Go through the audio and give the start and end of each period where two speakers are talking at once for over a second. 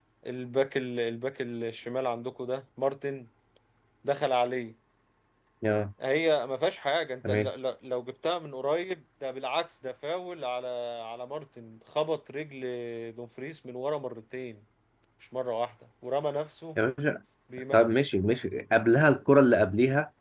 none

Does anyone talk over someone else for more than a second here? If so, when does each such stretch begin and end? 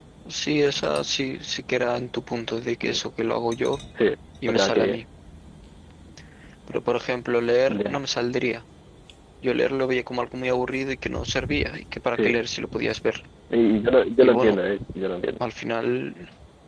none

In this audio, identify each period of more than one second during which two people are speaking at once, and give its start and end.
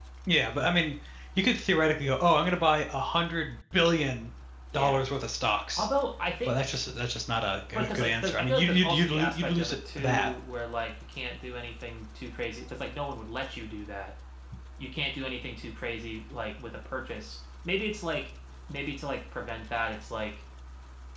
7.7-10.3

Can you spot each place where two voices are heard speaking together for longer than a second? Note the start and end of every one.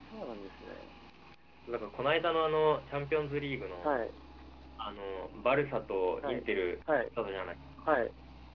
none

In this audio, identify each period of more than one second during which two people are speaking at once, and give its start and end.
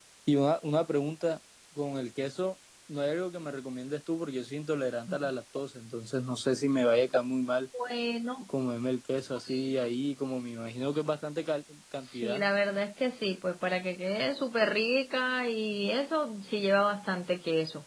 none

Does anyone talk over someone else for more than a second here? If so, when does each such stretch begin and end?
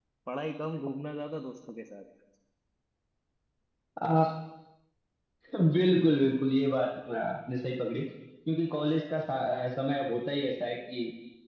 none

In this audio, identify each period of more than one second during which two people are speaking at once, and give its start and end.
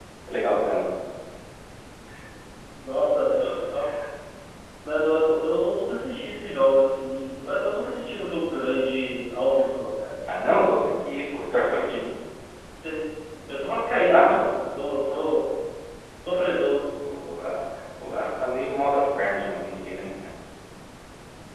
none

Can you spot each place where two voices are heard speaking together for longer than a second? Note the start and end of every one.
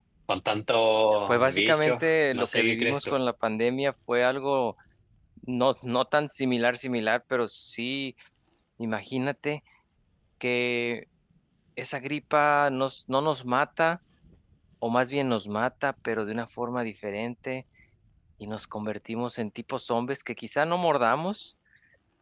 1.3-3.1

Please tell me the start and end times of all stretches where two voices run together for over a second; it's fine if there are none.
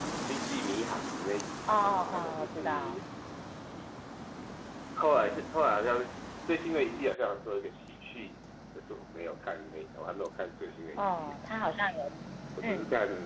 1.7-3.0

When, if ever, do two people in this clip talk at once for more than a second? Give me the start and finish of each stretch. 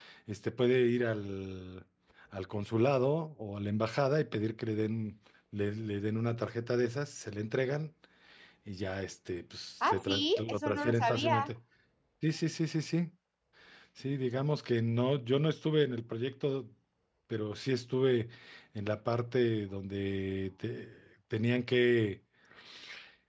9.8-11.5

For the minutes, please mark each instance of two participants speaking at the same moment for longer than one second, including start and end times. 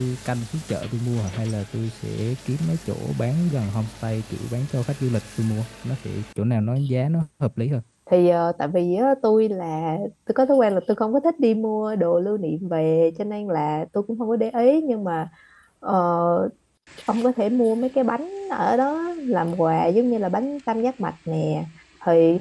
none

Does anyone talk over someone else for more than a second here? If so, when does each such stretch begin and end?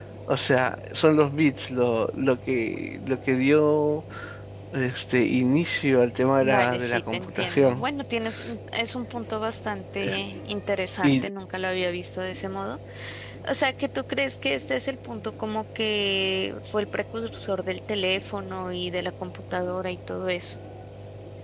6.4-7.8

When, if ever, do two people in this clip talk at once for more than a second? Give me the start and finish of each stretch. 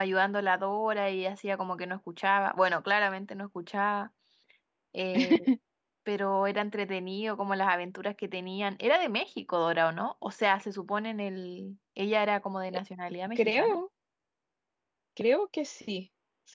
none

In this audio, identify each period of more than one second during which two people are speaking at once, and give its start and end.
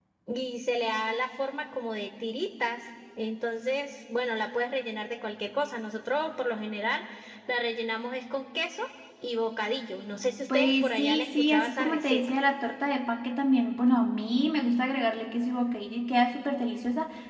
10.5-12.2

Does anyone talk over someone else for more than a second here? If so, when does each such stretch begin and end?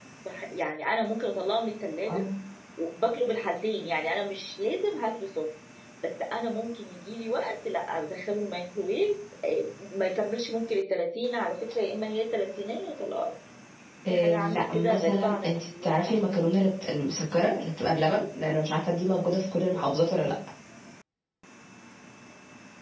14.1-16.1

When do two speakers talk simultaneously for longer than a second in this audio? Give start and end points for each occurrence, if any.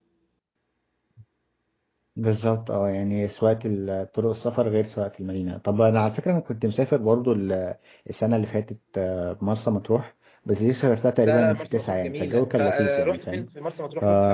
11.2-13.5

